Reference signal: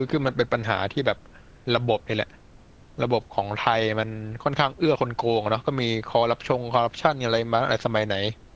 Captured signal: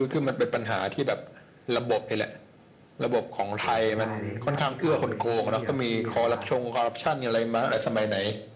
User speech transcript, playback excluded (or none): โหไม่ได้เลยแล้วแบบมีข่าวอื่นอีกไหมพี่ที่แบบพี่แบบว่า